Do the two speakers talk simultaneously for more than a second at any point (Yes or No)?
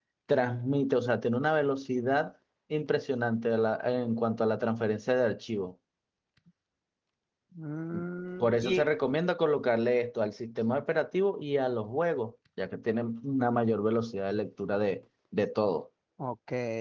No